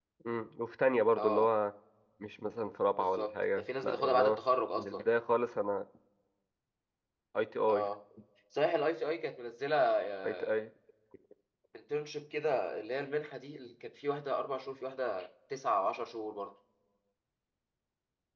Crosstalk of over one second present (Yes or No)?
Yes